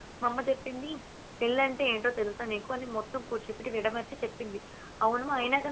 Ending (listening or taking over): listening